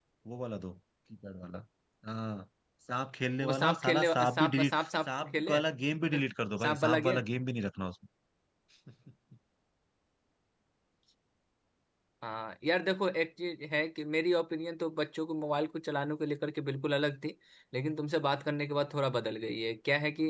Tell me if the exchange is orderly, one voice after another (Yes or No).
No